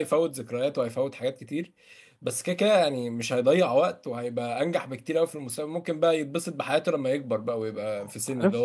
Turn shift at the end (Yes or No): No